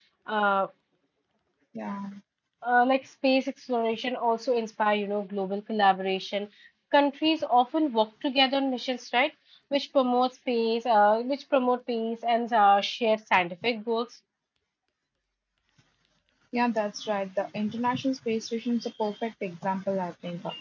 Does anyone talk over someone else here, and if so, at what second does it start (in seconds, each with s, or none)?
none